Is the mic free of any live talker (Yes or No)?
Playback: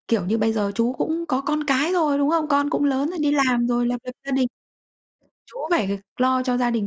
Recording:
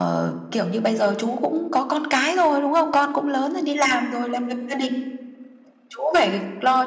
Yes